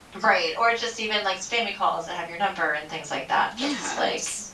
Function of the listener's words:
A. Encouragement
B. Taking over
B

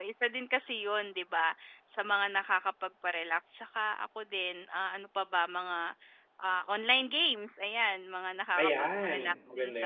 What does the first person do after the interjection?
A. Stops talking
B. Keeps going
A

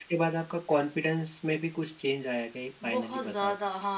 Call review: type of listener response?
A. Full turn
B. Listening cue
A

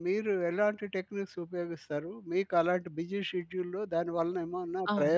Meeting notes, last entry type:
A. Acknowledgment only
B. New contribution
A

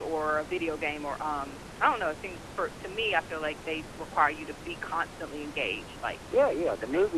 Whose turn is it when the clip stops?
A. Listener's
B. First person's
A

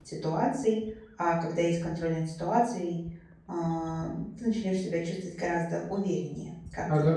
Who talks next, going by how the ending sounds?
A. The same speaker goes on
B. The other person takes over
B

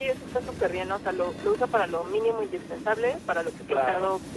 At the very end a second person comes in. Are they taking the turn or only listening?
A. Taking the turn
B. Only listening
B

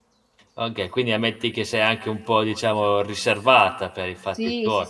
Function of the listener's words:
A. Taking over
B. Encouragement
A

